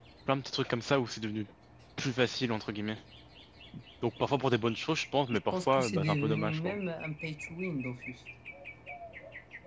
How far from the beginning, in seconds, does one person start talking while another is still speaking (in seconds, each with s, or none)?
5.5 s